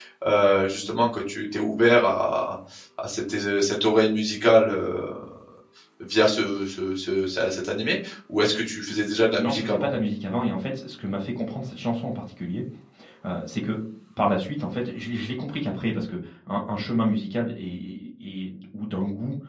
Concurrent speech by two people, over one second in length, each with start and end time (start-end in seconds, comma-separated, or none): none